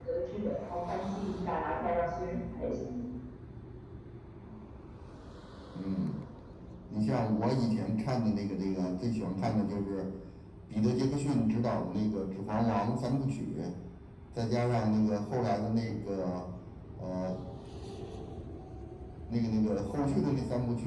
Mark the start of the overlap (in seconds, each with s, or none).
none